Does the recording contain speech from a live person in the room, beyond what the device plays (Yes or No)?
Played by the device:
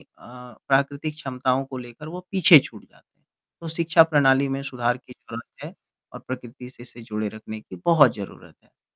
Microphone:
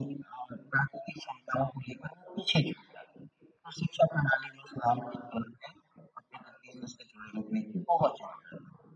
No